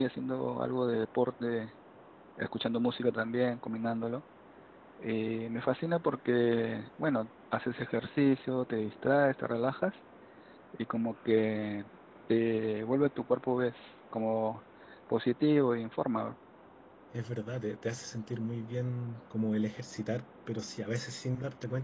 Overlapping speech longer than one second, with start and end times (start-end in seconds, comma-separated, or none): none